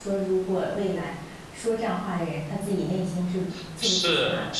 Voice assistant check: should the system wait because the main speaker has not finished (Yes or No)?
No